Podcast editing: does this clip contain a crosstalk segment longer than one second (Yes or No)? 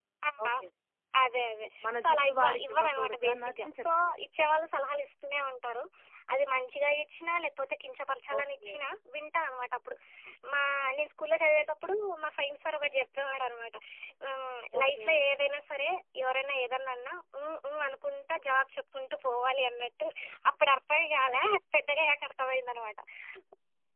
Yes